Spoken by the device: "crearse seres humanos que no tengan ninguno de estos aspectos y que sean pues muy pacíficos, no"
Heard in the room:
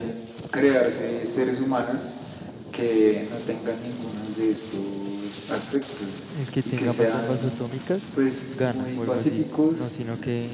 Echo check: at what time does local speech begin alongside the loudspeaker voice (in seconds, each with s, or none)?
6.3 s